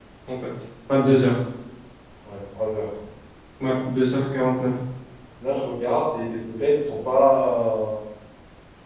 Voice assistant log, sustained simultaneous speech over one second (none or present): none